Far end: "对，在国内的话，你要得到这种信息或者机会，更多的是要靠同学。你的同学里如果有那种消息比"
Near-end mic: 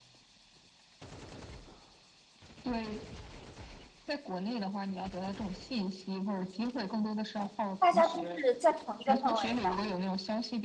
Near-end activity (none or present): present